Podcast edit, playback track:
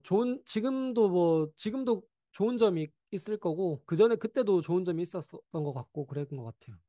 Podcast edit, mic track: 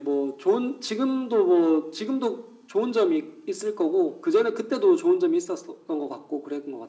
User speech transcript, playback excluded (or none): none